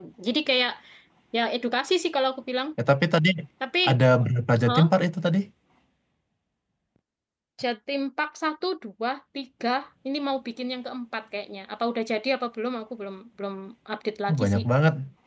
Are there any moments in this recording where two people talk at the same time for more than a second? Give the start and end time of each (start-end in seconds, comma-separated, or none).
none